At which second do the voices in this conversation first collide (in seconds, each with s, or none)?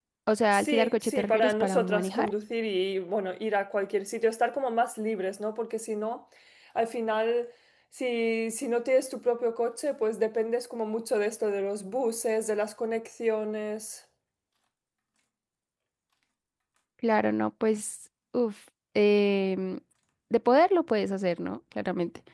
0.5 s